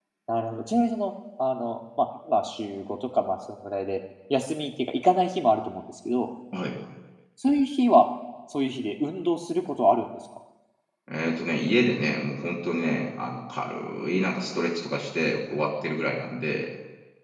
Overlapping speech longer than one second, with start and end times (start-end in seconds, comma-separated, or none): none